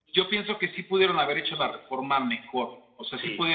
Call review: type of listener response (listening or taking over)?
listening